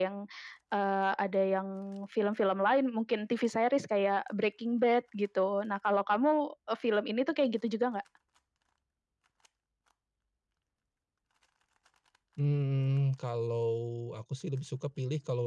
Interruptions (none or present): none